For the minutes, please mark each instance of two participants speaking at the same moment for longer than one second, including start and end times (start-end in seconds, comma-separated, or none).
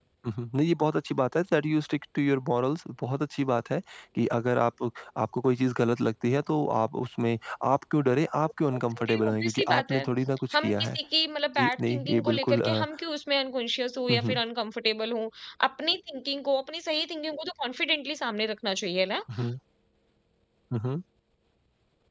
8.8-10.0, 11.6-12.8